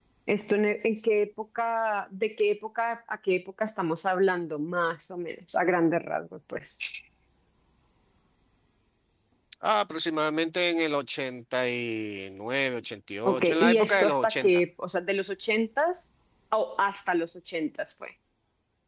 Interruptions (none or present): present